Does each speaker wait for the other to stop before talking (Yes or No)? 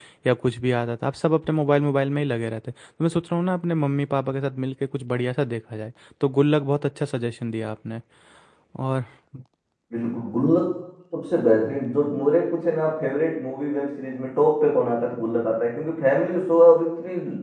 Yes